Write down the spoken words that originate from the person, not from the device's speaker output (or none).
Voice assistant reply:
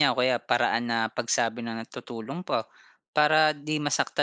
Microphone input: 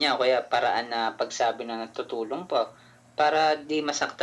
none